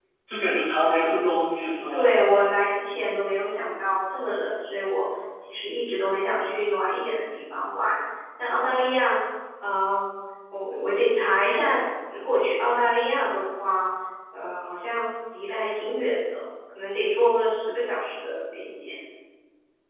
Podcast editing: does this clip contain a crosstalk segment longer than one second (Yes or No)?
No